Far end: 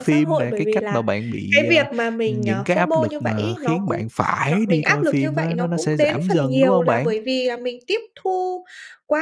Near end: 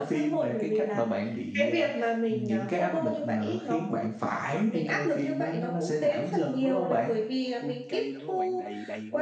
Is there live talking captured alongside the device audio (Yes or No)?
Yes